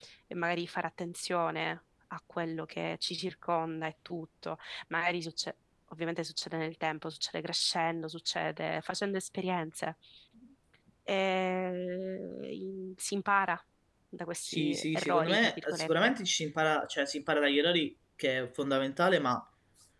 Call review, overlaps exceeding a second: present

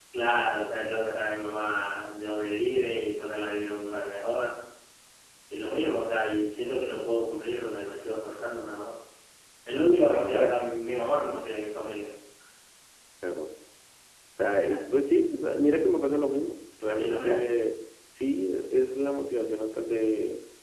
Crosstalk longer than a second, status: none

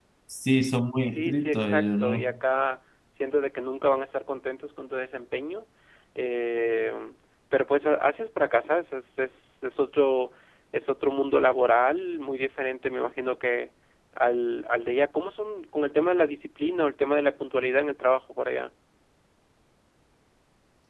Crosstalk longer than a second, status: present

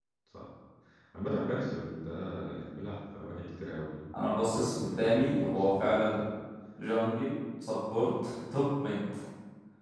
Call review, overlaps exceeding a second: present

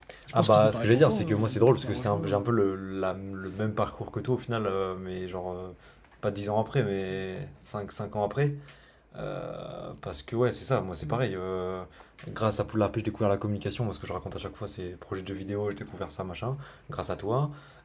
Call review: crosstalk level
present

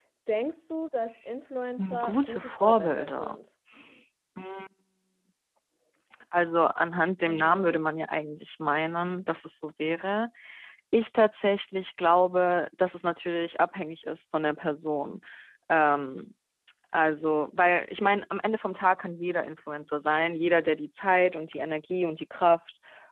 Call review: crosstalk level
present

